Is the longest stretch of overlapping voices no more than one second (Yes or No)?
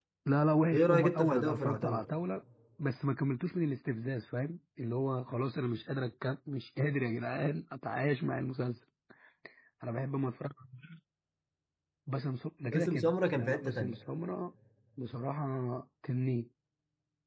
No